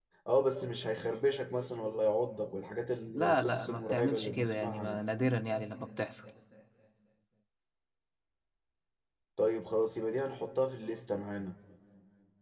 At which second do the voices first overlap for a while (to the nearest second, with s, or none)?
3 s